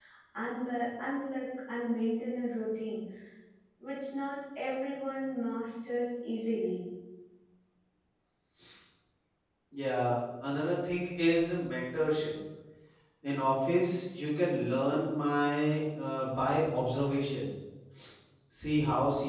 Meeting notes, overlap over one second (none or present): none